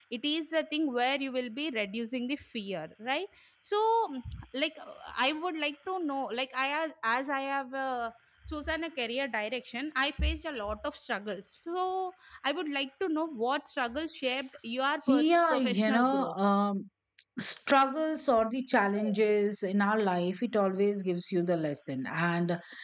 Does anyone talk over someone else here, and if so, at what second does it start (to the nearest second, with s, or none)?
15 s